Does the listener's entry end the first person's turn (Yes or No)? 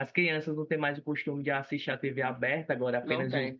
No